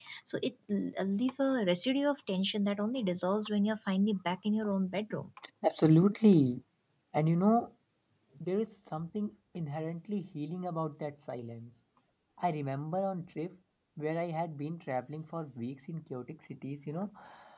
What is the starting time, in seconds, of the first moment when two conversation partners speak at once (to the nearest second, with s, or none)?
none